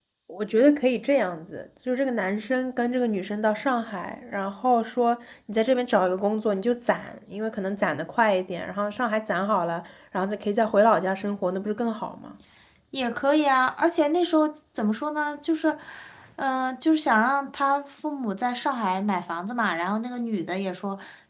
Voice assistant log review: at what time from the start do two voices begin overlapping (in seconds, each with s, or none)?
none